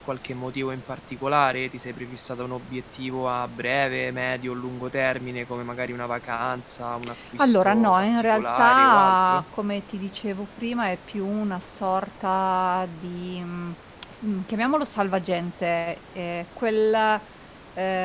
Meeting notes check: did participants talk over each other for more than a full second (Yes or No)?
Yes